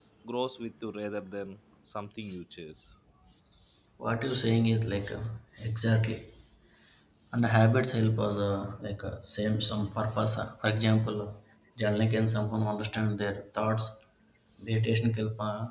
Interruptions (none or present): none